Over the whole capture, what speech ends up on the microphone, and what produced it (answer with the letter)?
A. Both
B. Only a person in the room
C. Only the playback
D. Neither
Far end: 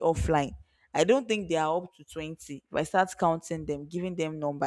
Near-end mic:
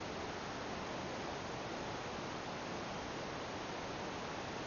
D